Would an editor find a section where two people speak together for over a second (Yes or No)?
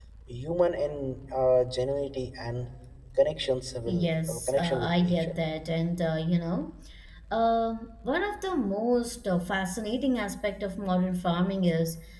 Yes